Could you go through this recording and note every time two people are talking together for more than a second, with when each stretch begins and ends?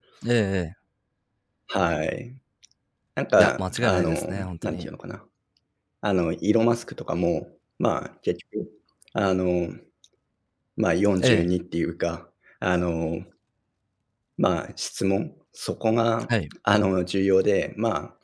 3.4-4.9

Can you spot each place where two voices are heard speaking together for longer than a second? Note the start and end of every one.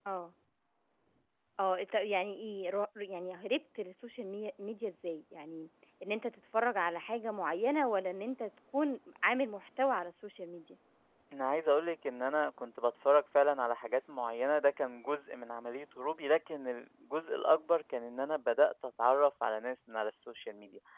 none

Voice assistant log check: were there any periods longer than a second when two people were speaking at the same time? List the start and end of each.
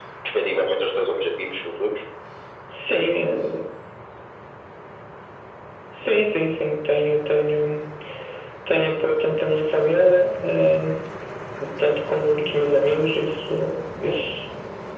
none

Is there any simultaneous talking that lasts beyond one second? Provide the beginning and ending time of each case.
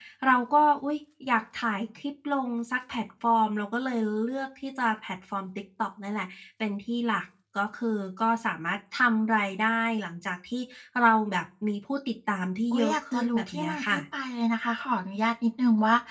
12.7-14.0

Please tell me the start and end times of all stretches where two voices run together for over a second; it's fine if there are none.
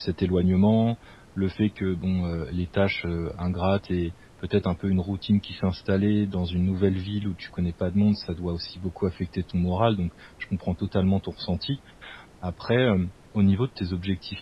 none

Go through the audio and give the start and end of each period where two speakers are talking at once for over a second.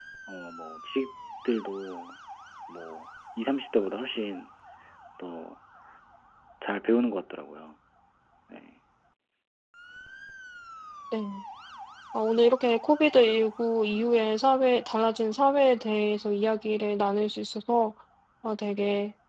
none

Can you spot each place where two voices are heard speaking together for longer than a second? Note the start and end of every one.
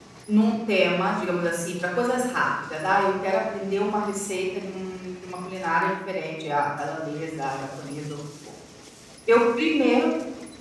none

